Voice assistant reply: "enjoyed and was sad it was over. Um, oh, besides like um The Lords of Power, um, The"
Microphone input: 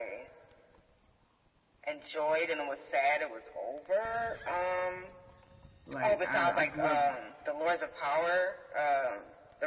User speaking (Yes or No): Yes